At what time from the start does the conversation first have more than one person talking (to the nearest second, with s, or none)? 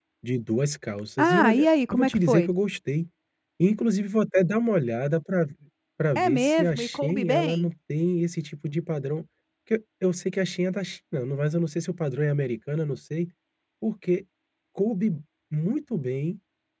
1 s